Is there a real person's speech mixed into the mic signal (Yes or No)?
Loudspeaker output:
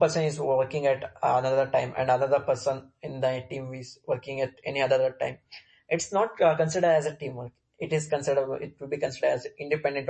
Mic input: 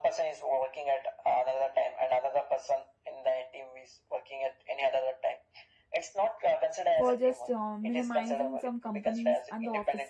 Yes